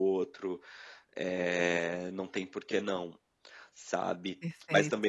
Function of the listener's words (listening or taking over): listening